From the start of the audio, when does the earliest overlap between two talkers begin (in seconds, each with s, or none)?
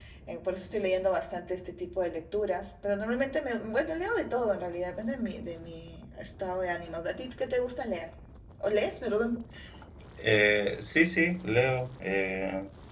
none